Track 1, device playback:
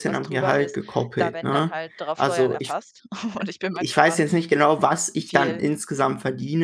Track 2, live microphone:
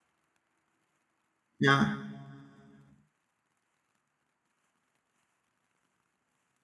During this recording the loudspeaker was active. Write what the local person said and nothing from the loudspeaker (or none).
Ja.